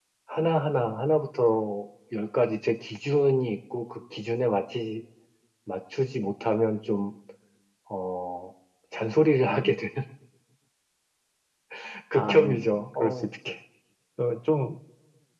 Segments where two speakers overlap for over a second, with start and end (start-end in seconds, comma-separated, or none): 12.1-13.5